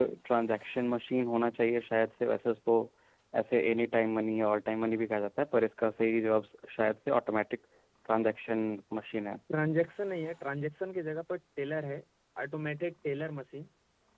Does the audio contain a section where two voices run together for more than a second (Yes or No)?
No